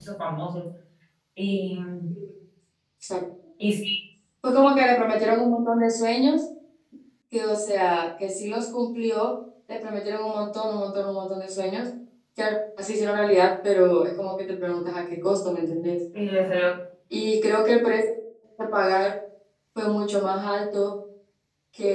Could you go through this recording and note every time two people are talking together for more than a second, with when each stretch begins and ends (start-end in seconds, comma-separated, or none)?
none